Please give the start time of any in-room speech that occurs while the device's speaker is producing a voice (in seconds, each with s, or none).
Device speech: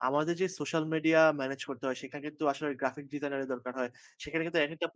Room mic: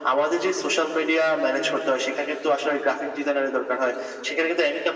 none